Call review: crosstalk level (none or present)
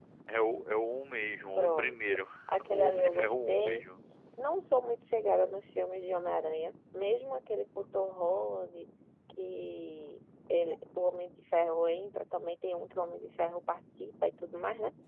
present